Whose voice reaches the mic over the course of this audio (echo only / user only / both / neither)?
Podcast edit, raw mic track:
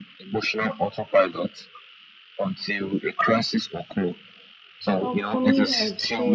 both